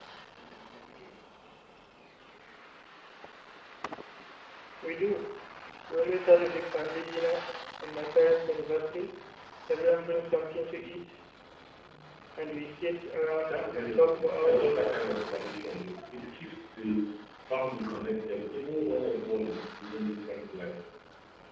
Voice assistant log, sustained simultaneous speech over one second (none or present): present